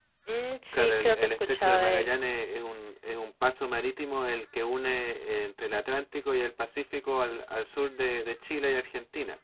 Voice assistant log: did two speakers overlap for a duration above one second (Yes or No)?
Yes